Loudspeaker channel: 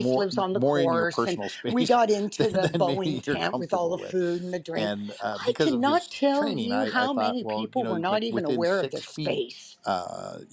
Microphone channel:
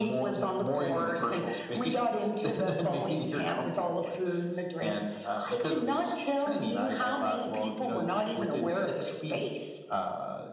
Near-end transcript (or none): none